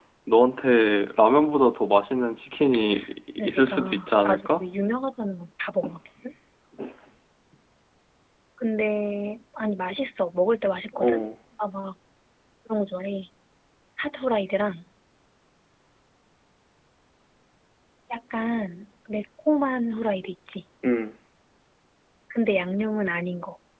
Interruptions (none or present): present